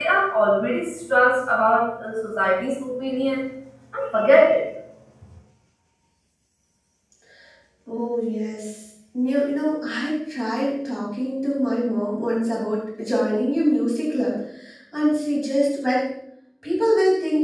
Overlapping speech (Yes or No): No